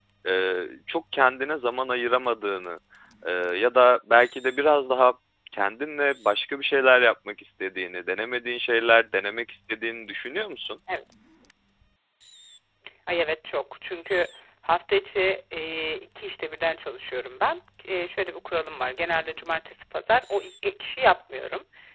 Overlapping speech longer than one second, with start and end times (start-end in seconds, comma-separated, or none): none